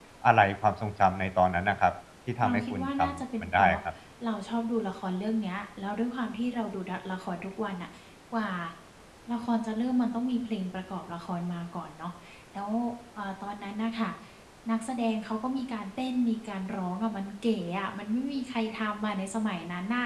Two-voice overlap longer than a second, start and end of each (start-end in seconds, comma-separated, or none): 2.4-3.8